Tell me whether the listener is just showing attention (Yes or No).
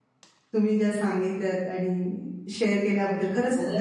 No